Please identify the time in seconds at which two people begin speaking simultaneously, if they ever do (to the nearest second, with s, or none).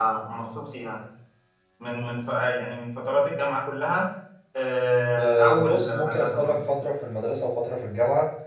5 s